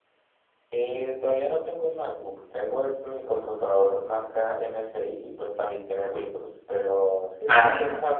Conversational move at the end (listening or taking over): listening